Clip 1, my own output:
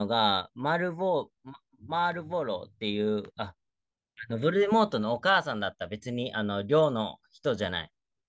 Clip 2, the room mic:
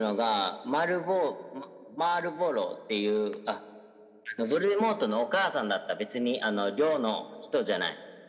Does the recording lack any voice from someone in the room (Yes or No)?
Yes